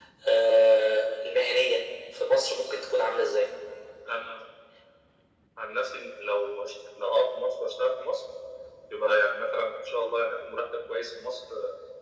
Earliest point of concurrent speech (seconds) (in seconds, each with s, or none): none